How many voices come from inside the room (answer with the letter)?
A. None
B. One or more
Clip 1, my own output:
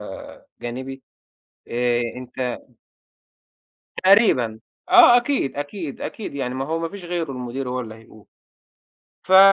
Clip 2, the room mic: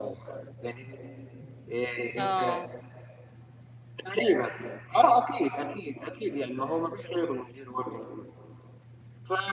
B